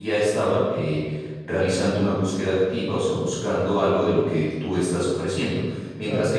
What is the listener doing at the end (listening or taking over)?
listening